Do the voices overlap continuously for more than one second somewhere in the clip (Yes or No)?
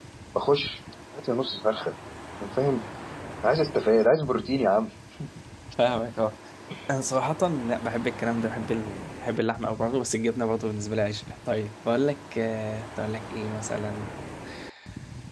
No